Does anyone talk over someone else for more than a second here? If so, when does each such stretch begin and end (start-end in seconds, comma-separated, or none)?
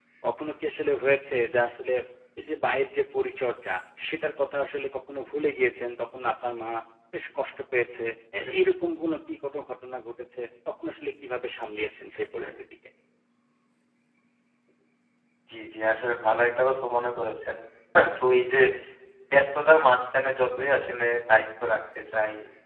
none